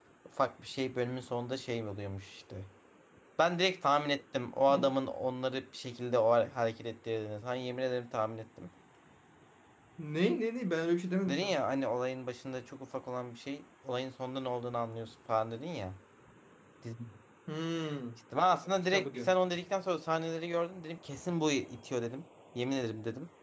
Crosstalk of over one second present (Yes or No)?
No